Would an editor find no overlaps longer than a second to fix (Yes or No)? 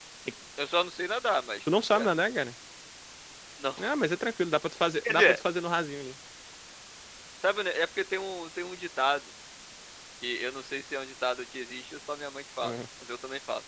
Yes